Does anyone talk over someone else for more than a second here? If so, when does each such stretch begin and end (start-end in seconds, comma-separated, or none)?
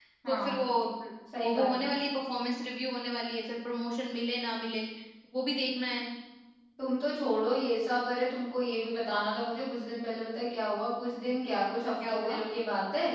none